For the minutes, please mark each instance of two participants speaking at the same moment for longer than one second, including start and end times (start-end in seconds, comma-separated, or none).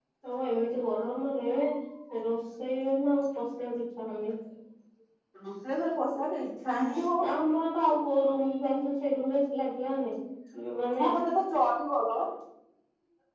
none